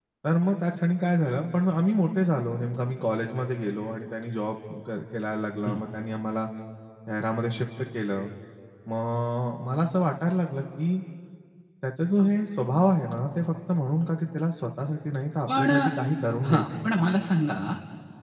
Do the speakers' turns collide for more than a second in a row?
No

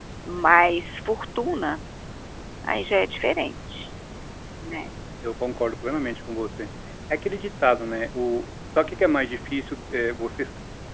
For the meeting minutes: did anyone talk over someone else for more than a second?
No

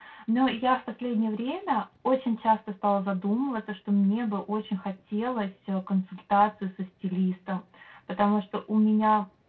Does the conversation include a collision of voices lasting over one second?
No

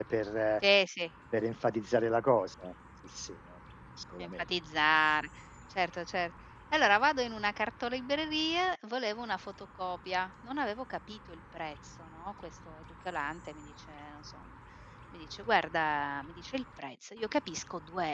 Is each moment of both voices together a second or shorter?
Yes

